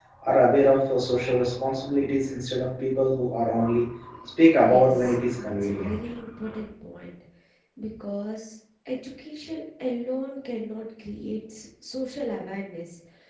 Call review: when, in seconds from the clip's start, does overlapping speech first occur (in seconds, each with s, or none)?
4.5 s